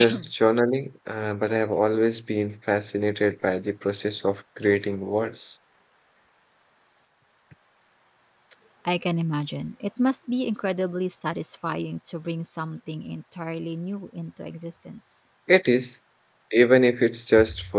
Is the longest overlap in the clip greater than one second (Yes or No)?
No